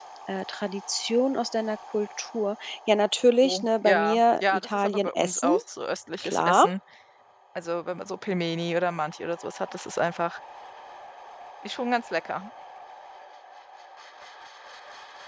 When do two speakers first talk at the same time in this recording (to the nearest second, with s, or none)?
3 s